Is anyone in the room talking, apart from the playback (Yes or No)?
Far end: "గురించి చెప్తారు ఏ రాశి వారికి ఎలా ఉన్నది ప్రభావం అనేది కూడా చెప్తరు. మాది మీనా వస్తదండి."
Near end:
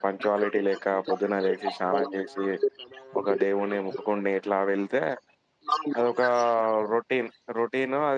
Yes